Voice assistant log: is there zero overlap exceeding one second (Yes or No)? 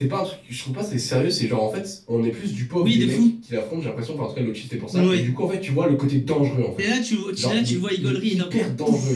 No